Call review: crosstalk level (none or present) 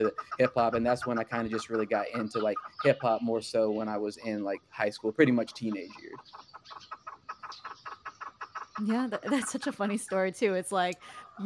none